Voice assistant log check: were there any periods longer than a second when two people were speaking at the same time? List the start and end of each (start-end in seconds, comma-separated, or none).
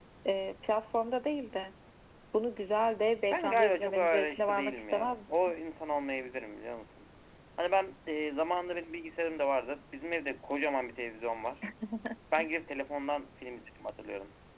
3.3-5.4